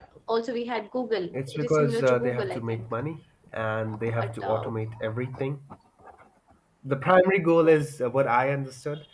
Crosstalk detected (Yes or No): Yes